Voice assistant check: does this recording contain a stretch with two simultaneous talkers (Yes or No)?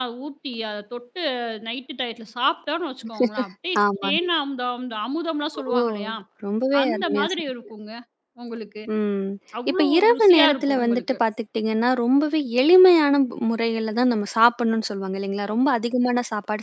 Yes